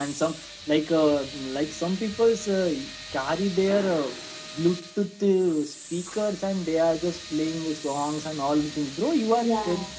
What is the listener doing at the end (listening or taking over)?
listening